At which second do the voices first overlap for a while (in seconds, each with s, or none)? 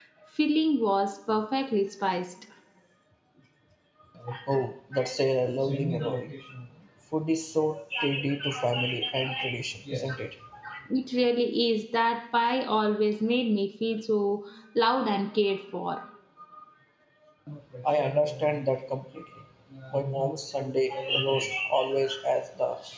none